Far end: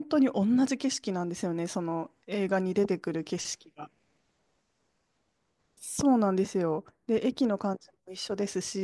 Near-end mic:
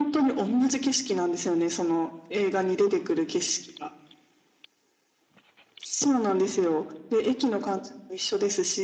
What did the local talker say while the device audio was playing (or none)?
none